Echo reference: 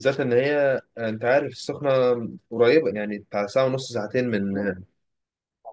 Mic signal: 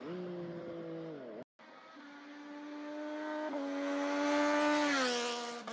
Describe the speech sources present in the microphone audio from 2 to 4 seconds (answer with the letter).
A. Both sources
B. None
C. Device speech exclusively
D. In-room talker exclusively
B